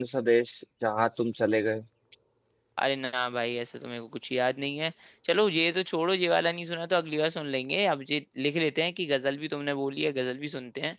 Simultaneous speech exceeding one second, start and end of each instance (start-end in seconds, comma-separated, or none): none